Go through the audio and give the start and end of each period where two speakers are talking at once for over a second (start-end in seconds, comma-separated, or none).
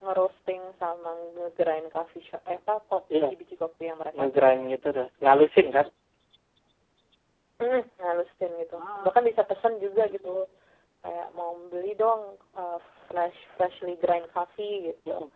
none